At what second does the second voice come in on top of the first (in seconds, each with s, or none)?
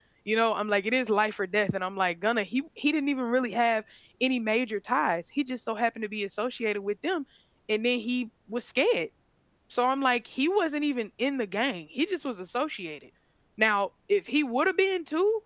none